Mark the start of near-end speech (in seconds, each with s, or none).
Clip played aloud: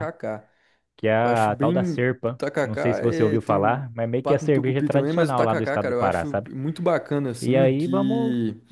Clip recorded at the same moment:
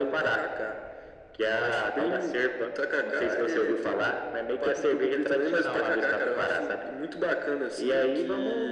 none